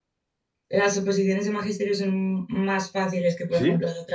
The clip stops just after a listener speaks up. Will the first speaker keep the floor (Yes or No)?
Yes